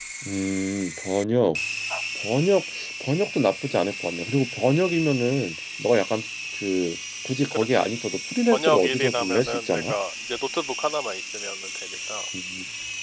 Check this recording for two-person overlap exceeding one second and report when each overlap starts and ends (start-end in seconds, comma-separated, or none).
8.5-9.9